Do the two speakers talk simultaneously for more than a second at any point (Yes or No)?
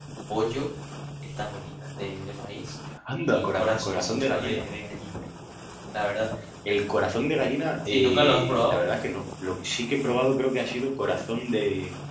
Yes